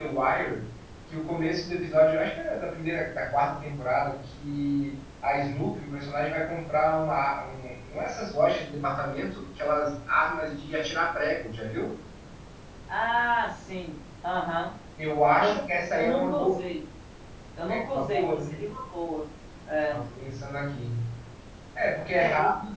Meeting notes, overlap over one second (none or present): present